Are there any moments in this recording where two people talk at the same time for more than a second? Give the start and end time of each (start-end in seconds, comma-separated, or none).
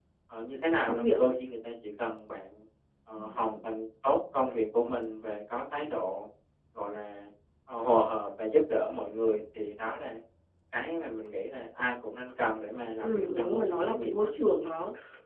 13.0-14.3